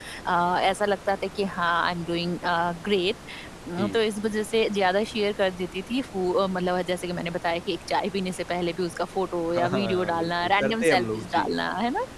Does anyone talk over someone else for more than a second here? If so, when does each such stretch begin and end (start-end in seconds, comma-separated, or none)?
9.5-11.4